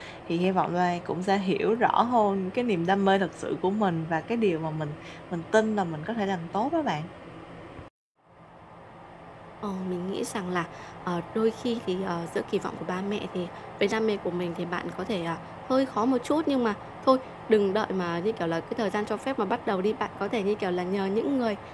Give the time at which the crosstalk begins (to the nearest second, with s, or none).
none